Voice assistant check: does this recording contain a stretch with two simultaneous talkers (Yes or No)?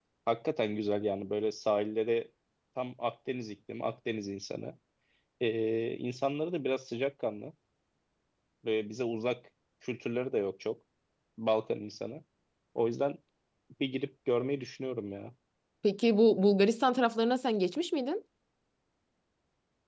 No